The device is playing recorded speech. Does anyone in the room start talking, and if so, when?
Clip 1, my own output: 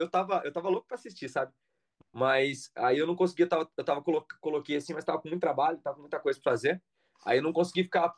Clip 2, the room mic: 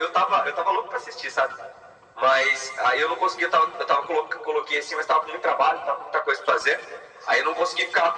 none

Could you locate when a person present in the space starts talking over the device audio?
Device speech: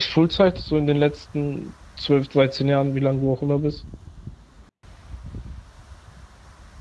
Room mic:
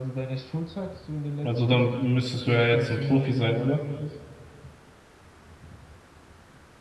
1.4 s

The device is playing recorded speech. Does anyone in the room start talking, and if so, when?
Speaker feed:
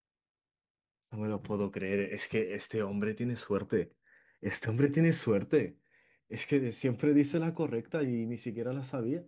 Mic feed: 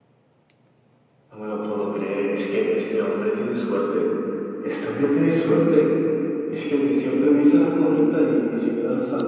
none

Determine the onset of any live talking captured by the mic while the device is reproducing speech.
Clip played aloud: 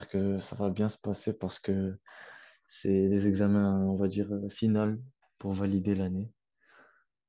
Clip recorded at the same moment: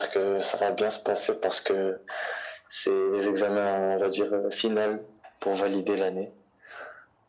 none

